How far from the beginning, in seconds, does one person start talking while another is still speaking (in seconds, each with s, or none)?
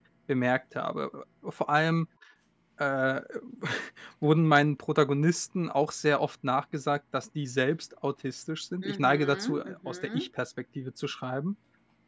8.8 s